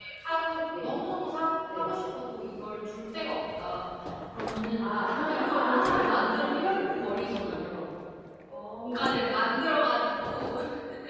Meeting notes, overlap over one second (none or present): present